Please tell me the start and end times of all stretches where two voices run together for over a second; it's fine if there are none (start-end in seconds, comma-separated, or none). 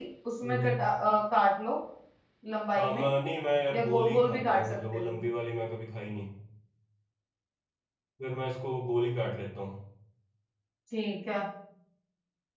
3.7-5.2